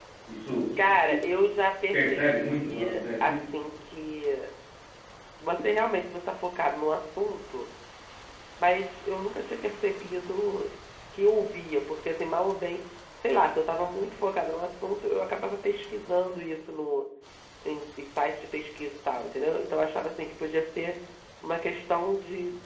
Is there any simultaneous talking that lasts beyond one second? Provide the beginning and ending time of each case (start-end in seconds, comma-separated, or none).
1.9-3.5